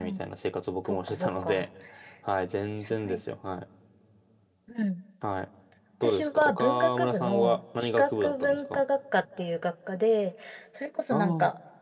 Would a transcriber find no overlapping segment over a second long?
No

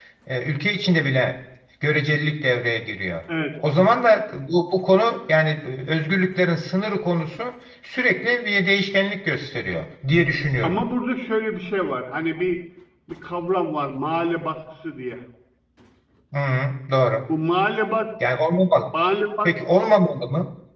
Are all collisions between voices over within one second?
Yes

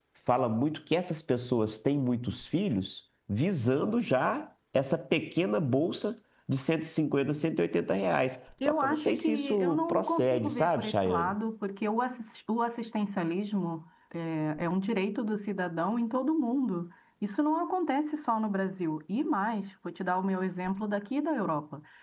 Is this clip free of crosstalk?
No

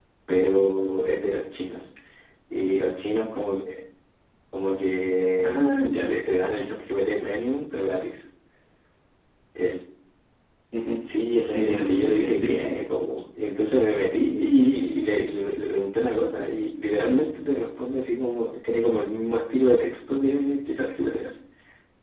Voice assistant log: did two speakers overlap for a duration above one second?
Yes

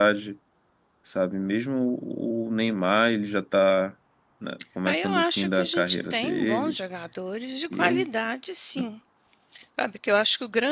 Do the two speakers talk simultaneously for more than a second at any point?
Yes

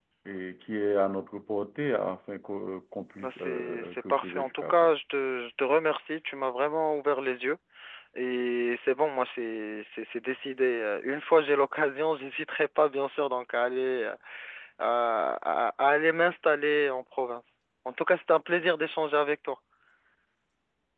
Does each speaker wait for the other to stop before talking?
No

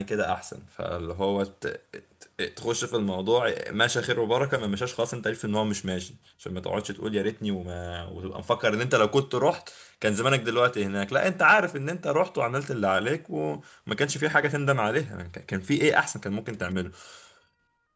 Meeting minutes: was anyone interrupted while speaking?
No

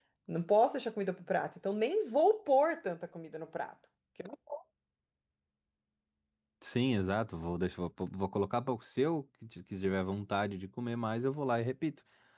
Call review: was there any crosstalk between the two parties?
No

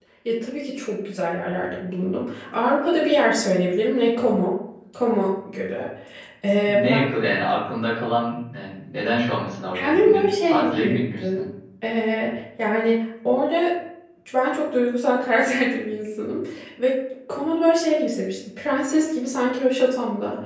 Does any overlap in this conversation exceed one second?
Yes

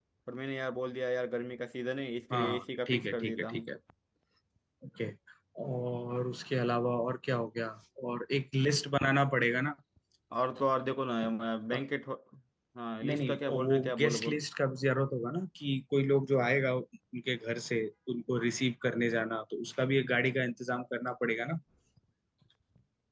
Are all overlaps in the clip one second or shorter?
No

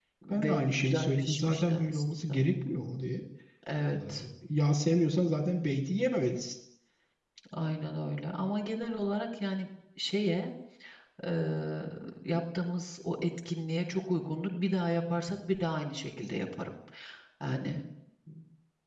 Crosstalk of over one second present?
Yes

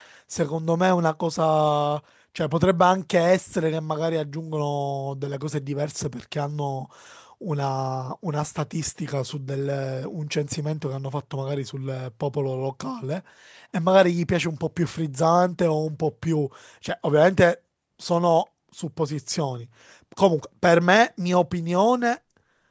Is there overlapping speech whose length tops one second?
No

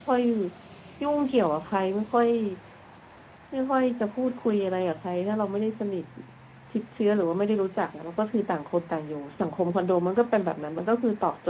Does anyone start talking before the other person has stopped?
No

